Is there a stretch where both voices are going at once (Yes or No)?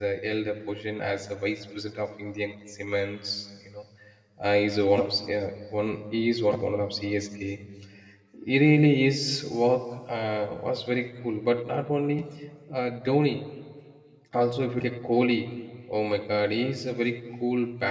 No